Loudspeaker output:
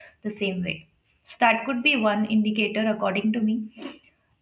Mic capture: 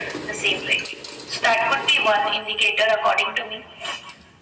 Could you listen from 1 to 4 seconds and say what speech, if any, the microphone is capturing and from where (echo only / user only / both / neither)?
echo only